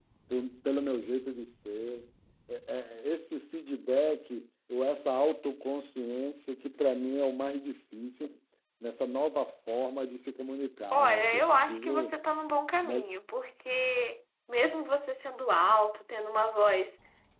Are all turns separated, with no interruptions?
No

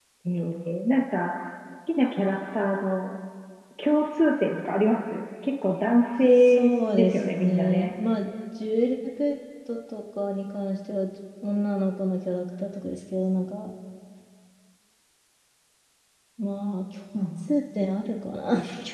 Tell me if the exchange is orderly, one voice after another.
No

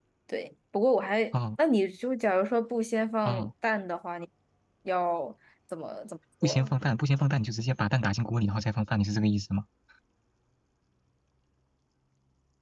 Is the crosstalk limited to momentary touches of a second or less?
Yes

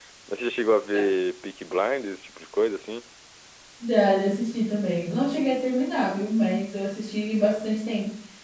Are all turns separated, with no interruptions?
Yes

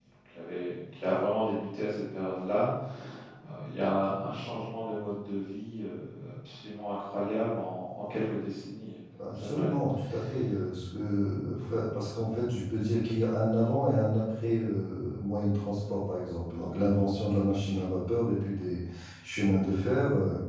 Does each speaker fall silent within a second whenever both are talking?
Yes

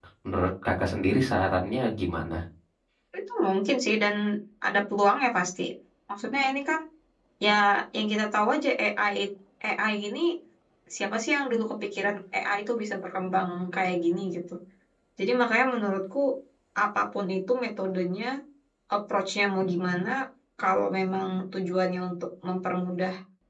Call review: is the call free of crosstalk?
Yes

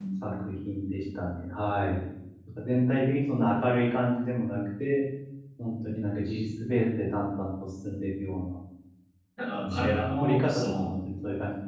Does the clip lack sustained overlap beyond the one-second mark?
No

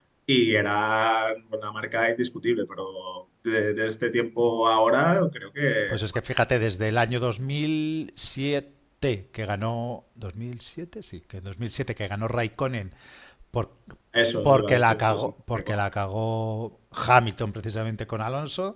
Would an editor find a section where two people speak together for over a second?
Yes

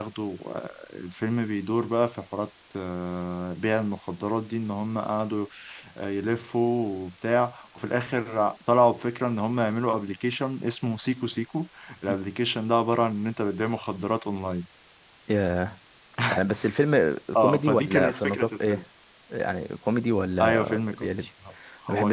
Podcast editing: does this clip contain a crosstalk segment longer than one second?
Yes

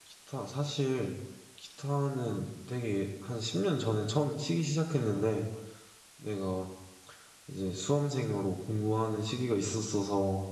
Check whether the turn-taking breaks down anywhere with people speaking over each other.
No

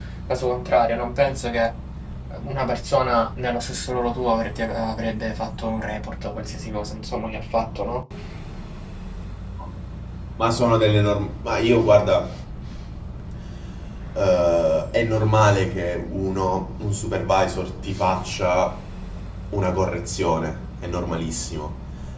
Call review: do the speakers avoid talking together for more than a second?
Yes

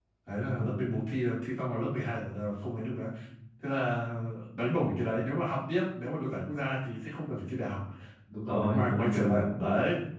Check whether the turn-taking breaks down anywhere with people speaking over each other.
Yes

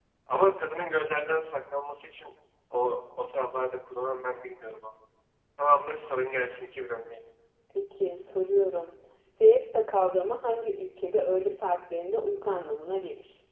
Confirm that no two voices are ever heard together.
Yes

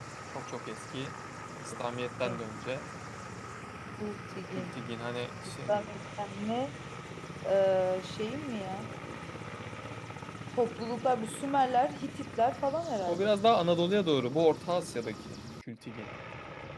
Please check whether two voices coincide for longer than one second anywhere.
No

